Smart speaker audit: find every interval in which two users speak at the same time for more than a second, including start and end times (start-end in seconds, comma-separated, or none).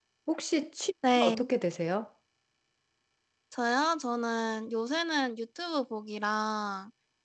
none